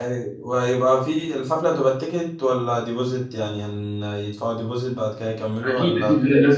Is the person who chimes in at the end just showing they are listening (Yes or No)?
No